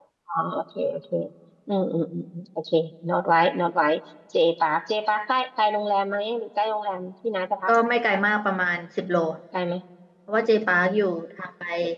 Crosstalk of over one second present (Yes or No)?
No